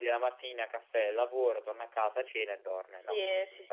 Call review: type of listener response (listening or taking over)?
taking over